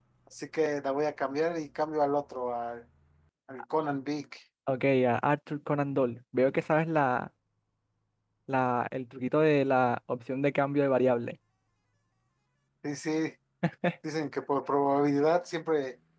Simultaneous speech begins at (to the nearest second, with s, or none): none